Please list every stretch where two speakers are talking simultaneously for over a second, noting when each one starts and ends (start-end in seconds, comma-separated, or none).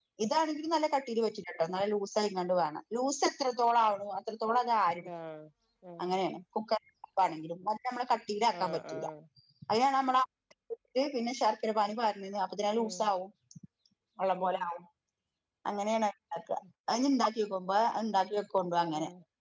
none